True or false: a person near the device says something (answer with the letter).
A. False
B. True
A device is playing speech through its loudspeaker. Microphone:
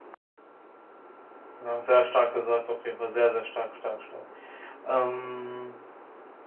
B